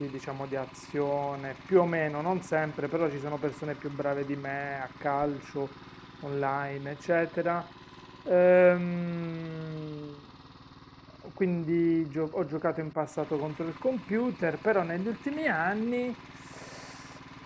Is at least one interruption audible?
No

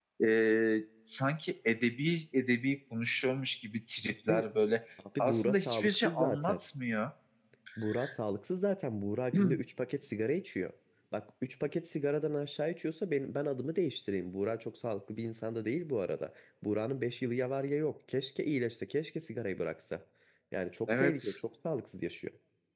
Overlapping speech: Yes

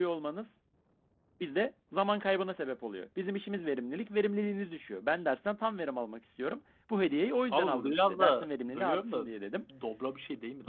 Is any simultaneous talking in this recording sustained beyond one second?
Yes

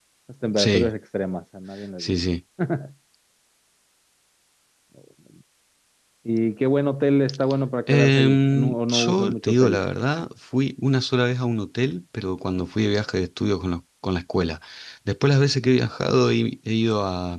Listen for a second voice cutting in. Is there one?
Yes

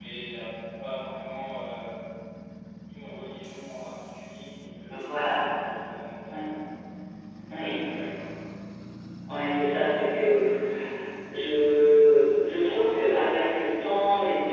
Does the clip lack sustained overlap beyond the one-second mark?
Yes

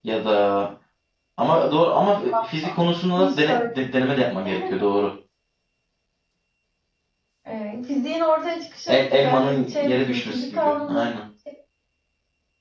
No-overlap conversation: No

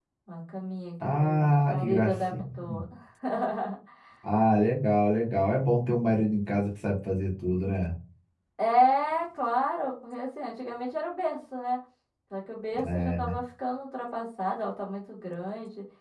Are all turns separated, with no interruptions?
No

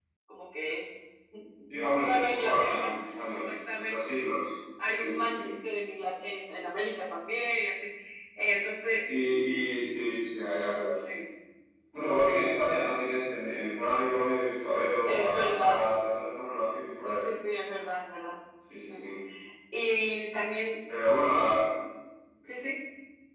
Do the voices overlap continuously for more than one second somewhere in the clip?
Yes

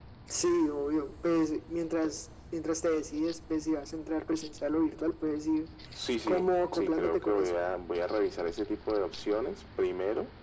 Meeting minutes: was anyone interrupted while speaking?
Yes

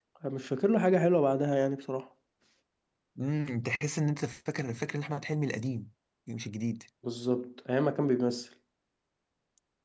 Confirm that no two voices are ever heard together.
Yes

